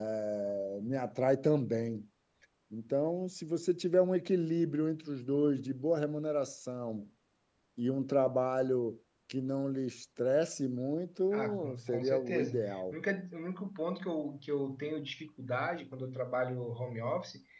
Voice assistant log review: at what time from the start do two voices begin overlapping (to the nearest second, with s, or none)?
11 s